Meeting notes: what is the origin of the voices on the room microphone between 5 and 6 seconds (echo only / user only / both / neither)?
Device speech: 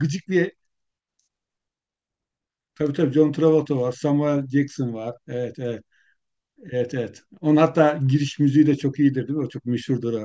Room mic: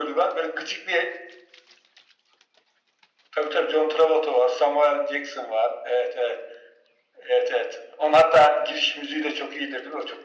echo only